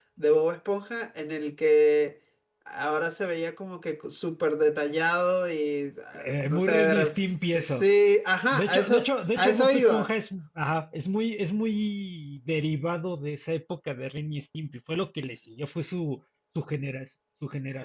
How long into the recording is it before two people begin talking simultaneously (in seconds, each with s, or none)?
6.1 s